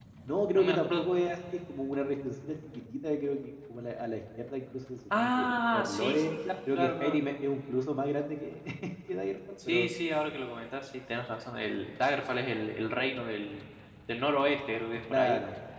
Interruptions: present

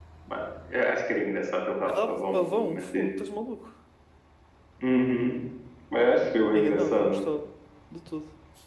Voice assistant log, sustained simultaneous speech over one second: present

